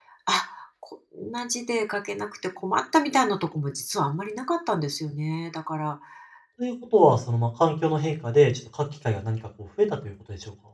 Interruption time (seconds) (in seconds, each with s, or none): none